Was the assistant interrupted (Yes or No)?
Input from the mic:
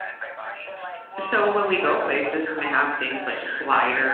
Yes